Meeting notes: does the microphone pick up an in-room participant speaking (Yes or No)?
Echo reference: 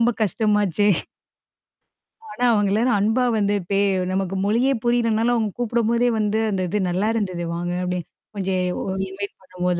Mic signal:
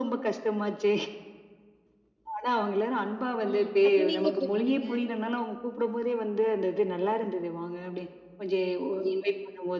Yes